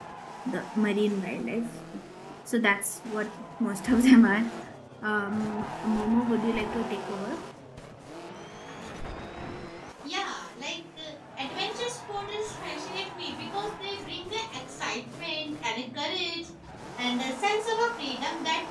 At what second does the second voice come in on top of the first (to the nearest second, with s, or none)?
none